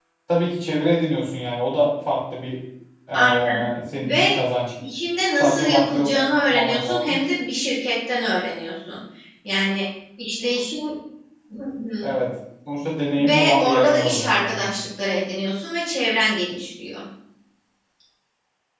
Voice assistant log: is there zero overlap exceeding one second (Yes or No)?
No